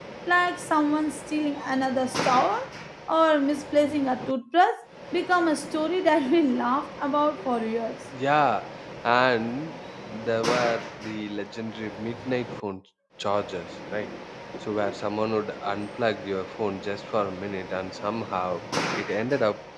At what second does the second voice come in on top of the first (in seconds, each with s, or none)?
none